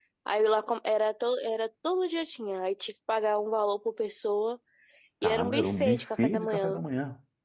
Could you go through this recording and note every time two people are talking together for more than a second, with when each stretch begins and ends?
5.2-6.8

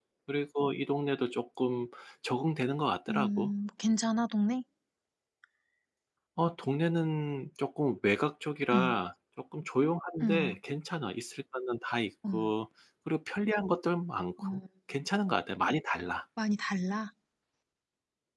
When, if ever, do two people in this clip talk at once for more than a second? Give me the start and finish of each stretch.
none

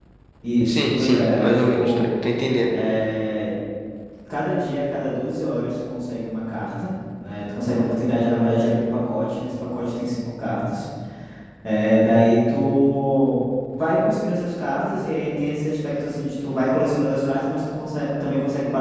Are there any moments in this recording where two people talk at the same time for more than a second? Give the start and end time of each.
0.6-2.1

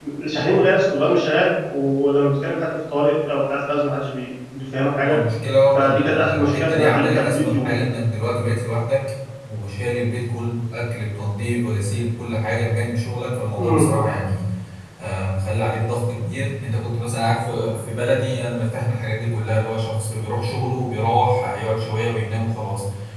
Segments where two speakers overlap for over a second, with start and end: 5.7-7.9

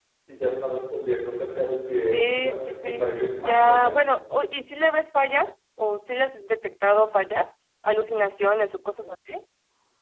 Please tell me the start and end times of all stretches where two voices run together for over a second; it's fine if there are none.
2.1-4.0

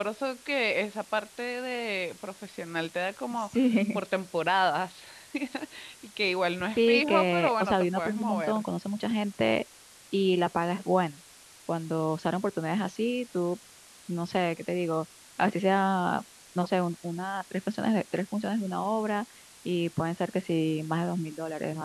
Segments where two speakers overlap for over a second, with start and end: 6.8-8.6

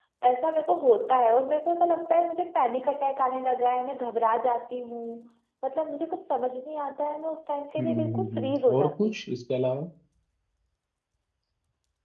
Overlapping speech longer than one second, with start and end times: 7.8-9.3

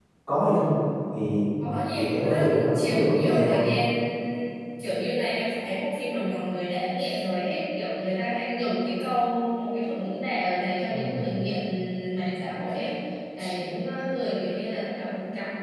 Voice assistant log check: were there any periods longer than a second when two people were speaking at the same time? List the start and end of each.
1.9-3.6

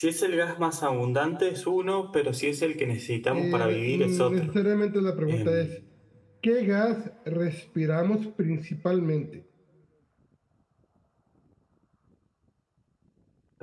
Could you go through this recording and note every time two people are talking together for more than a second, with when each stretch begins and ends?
3.3-4.5

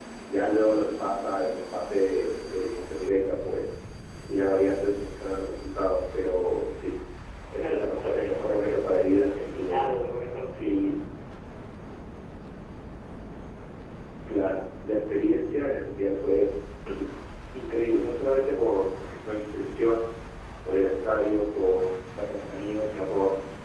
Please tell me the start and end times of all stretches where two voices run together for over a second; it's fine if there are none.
7.6-9.8

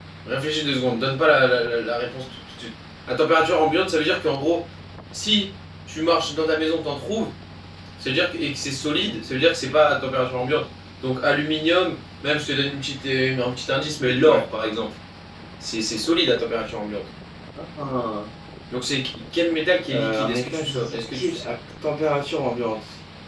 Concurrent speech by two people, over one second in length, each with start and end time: 19.9-21.4

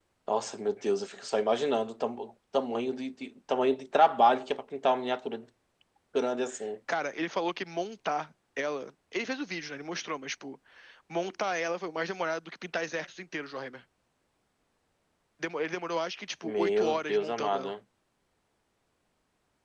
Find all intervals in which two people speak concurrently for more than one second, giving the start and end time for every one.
16.4-17.7

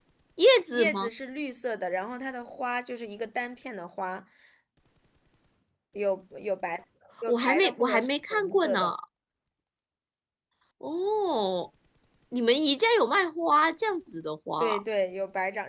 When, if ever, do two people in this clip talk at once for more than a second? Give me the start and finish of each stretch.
7.2-8.9

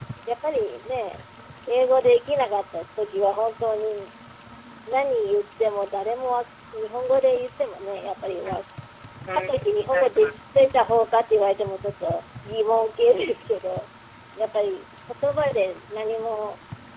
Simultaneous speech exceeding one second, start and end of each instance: 9.3-10.7

